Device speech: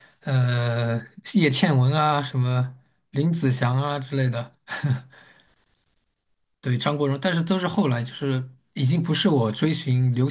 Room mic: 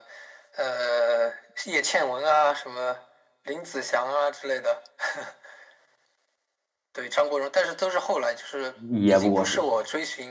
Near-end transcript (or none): 也不过时。